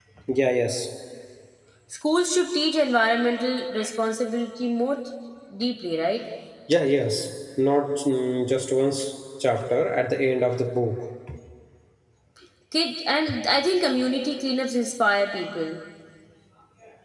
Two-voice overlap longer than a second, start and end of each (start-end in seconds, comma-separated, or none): none